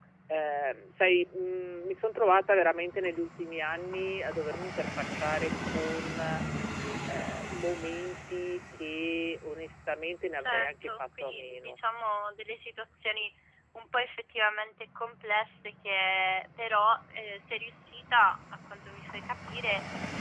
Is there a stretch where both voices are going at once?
Yes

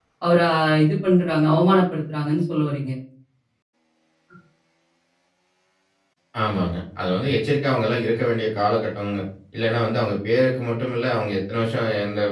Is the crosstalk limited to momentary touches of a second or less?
Yes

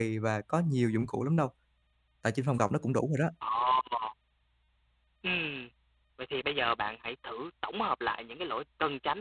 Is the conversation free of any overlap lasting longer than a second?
Yes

